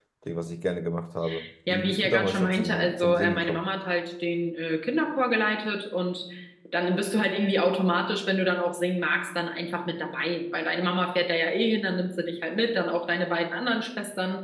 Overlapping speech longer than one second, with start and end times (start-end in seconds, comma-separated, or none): 1.7-3.7